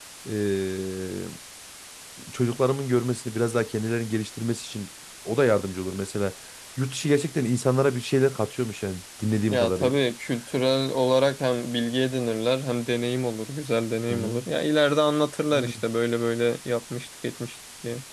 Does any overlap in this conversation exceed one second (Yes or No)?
No